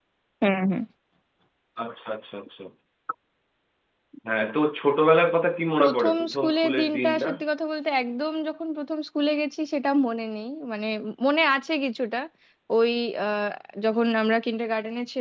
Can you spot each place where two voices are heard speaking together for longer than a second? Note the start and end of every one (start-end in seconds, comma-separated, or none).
5.8-7.3